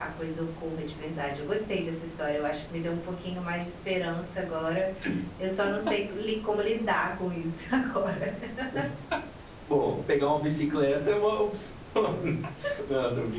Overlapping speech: No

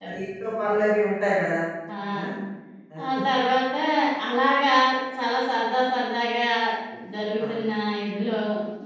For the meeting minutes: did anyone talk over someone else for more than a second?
No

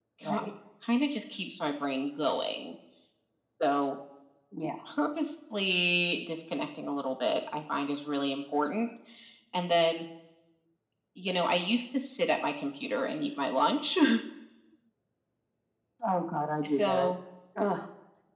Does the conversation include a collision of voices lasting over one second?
No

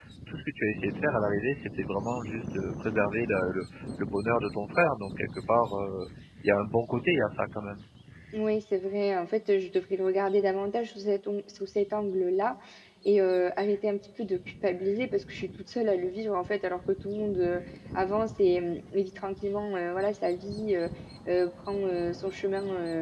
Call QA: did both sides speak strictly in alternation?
Yes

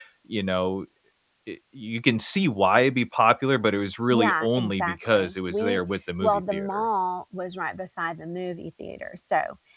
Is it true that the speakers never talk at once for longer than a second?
No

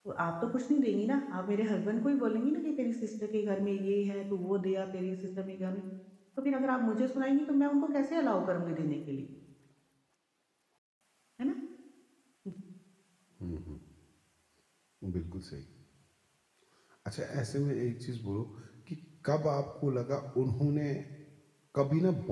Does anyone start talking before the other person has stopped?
No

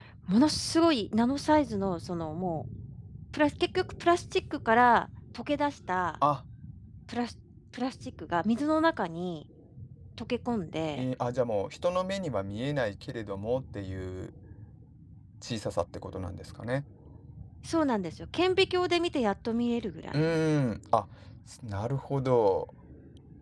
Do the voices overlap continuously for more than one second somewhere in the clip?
No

